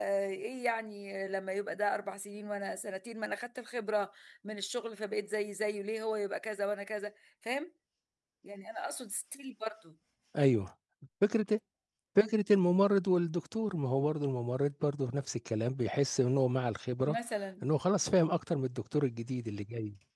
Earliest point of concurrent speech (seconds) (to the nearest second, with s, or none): none